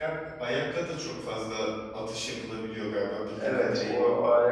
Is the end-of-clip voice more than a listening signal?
Yes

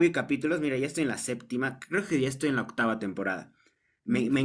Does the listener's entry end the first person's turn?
No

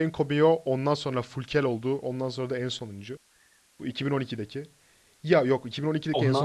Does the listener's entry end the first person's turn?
No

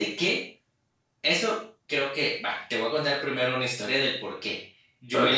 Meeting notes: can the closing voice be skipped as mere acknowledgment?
Yes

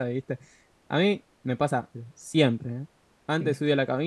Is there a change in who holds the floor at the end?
No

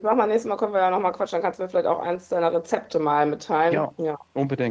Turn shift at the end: Yes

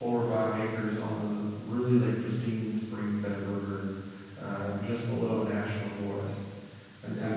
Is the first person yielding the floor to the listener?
No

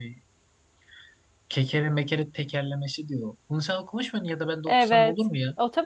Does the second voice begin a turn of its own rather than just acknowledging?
Yes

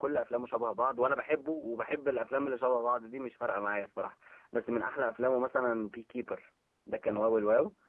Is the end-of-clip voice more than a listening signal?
Yes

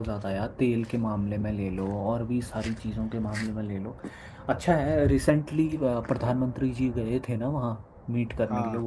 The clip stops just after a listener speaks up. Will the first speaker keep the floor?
Yes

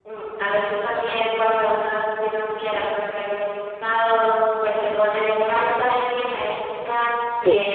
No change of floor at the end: Yes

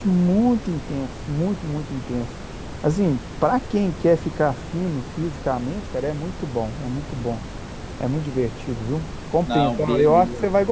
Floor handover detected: No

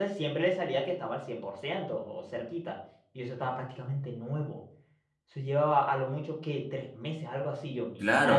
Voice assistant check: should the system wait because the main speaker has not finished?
No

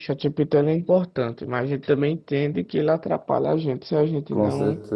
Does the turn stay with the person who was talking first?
No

